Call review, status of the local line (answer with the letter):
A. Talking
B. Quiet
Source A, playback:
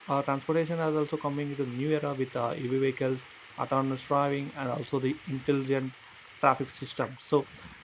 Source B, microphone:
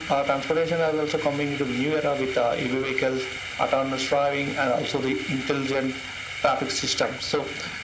B